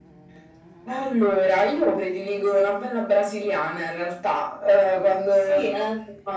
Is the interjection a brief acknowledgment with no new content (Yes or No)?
Yes